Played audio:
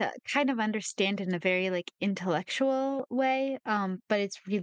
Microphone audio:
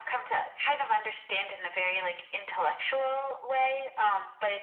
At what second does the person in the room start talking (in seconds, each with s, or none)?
none